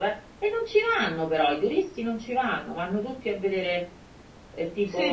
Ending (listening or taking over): taking over